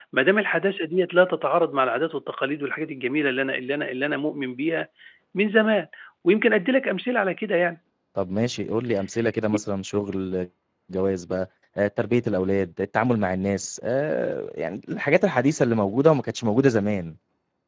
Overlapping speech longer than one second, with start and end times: none

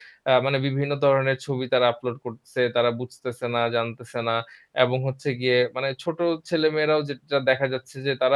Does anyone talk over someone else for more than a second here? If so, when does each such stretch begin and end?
none

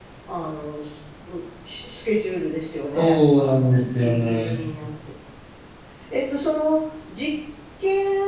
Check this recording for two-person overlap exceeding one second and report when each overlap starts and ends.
3.0-4.6

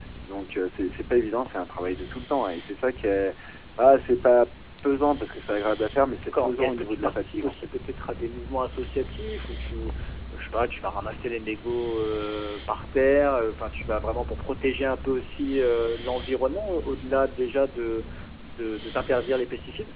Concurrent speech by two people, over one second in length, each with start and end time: 6.3-7.5

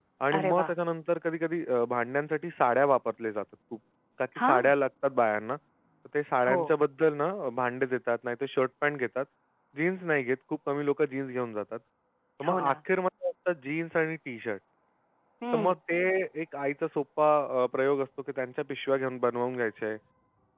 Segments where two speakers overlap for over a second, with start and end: none

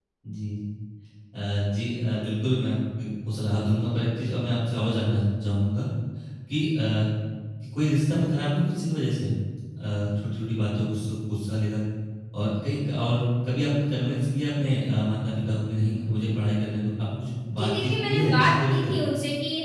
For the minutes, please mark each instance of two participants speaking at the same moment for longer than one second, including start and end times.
17.6-19.0

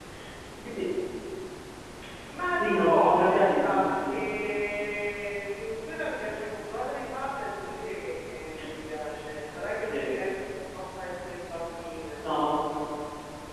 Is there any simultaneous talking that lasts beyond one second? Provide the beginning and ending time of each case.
2.6-4.2

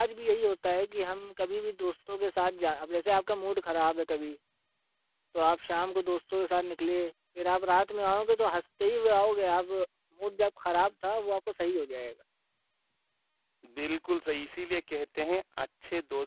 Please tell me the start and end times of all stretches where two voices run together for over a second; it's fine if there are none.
none

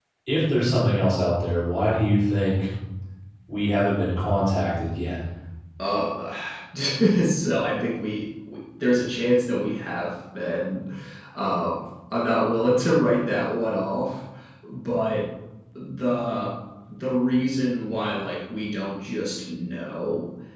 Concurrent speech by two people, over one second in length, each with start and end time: none

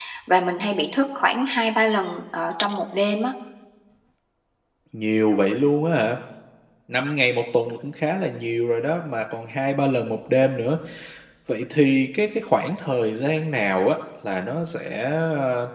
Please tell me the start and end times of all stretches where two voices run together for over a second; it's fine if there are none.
none

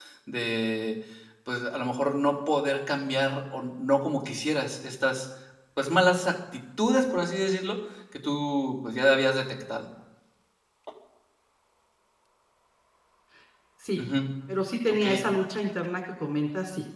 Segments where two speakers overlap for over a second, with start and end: none

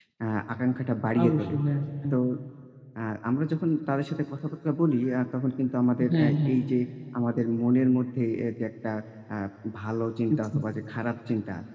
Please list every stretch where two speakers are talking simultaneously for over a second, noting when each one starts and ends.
none

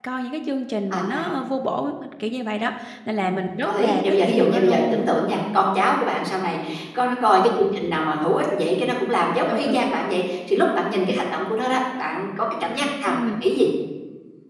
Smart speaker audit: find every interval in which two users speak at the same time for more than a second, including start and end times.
3.2-5.1

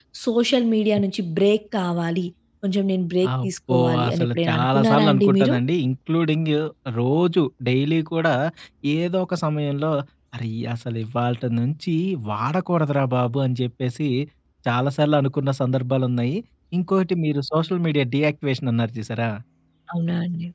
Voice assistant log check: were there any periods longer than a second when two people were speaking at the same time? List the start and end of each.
3.4-5.5

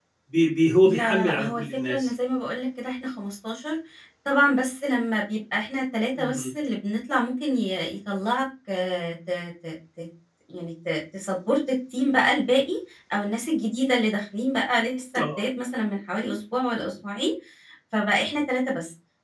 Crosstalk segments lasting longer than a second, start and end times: 0.8-2.1

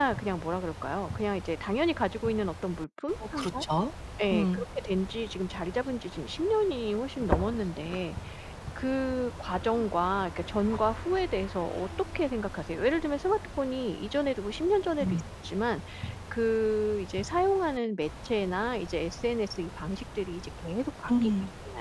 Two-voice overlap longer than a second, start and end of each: none

